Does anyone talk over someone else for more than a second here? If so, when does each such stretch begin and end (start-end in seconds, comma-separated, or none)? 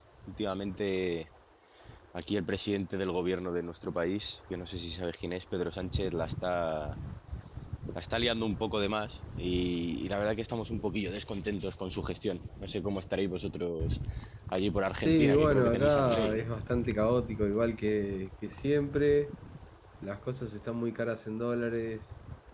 15.0-16.5